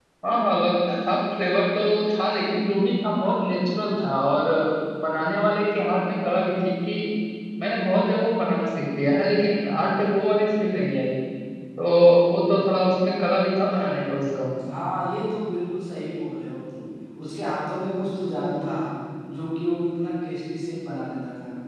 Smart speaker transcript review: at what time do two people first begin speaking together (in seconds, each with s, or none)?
none